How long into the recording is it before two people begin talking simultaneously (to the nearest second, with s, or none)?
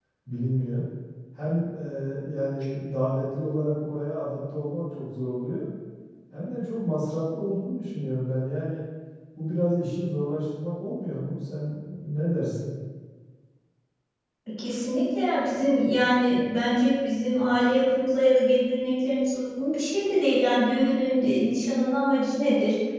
none